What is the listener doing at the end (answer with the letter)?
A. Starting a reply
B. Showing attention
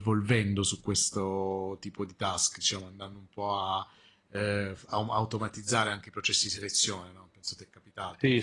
A